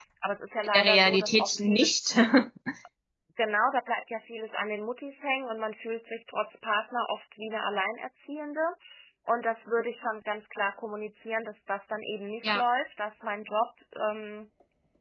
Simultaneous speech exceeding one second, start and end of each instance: 0.6-2.0

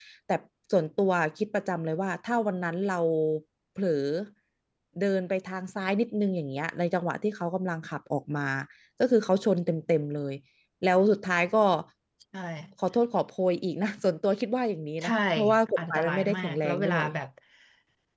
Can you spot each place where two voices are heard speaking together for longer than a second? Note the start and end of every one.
15.8-17.0

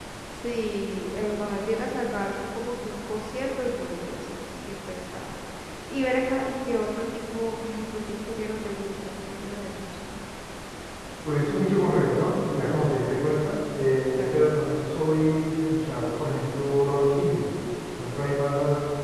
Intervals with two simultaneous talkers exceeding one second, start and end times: none

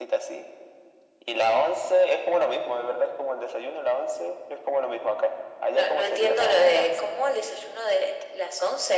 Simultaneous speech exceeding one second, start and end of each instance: 5.7-7.1

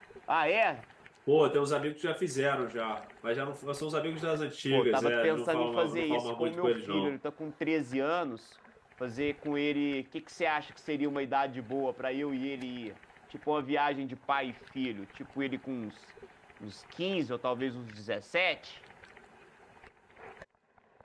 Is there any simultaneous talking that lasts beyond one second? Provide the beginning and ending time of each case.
4.7-7.1

